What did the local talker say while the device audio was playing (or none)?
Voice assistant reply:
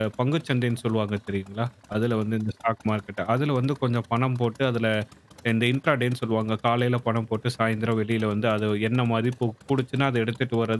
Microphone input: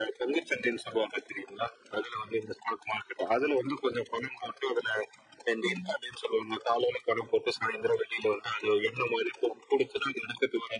ம்.